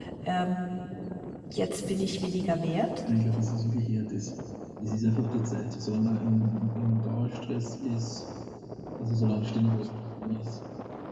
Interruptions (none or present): none